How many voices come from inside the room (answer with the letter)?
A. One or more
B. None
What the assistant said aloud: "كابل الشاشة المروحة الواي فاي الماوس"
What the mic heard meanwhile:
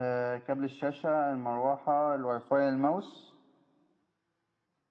B